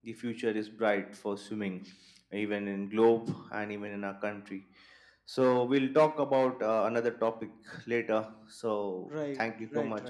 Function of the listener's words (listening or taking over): taking over